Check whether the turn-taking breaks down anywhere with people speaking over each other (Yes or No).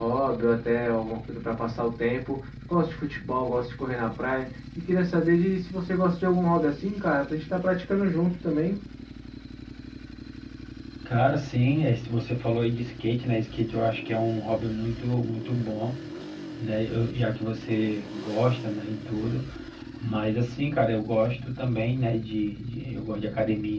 No